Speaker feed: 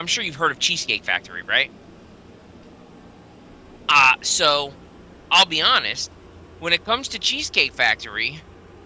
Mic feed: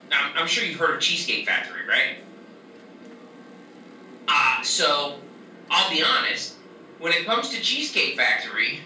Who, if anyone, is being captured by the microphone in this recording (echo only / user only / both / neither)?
echo only